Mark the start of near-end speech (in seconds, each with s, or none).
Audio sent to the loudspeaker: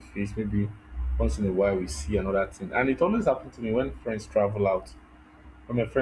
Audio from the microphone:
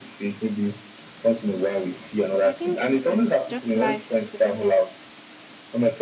2.4 s